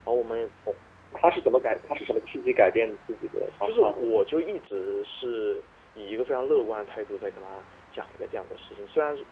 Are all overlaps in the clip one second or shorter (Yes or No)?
Yes